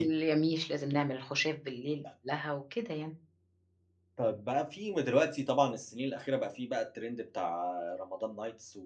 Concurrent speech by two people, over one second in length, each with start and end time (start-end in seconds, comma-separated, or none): none